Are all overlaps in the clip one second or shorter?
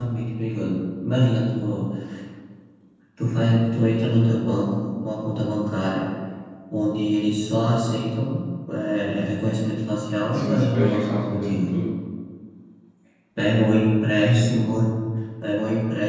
No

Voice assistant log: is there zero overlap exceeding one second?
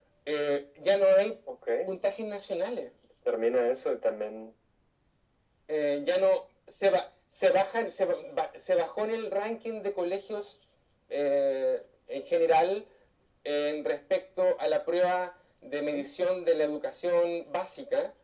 Yes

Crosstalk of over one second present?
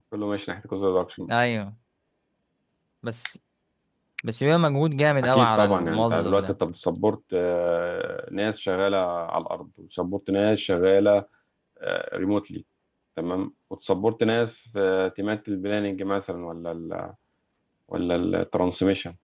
Yes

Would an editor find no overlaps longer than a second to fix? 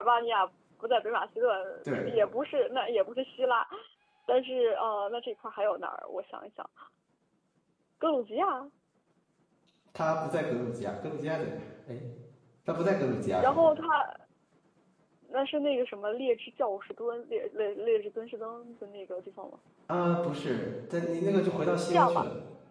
Yes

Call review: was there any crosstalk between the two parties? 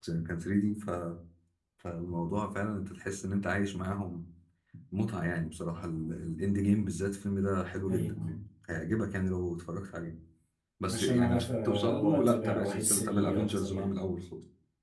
Yes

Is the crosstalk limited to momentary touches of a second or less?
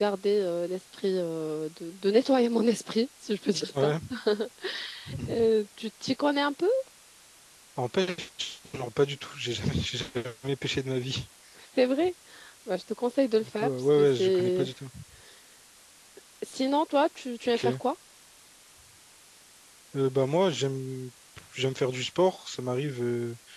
No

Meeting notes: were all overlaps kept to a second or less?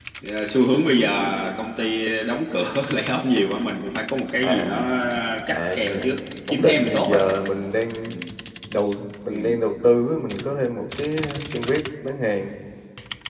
No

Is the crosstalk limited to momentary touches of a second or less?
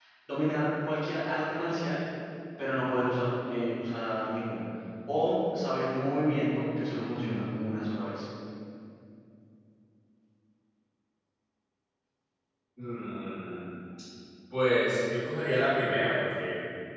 Yes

